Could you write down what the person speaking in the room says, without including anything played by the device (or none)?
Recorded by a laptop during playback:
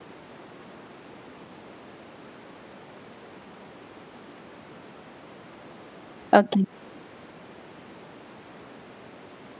okay